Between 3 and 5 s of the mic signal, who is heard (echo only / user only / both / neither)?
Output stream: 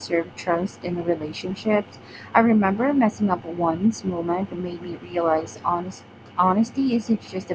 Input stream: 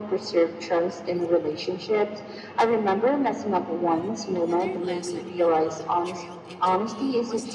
both